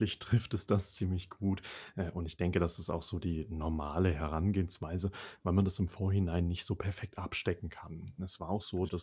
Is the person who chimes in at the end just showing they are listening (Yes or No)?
Yes